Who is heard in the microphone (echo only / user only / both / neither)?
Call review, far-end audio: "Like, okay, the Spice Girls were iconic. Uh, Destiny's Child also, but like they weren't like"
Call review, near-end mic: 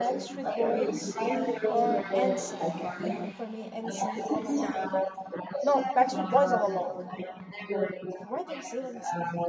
both